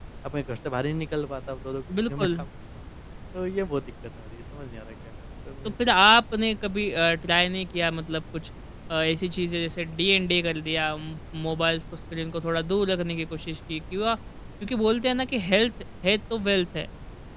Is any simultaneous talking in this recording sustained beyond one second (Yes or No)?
No